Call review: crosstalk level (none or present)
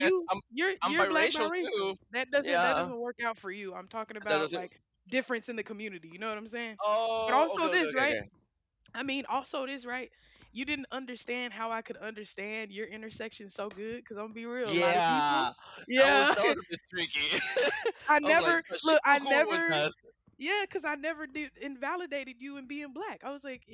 present